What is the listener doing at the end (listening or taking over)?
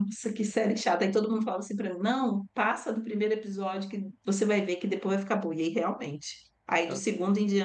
listening